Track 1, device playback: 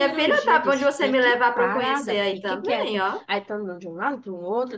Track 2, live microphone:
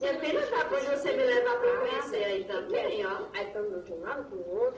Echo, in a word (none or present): present